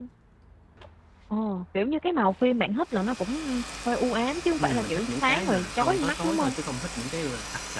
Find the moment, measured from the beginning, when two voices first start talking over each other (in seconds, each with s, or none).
4.6 s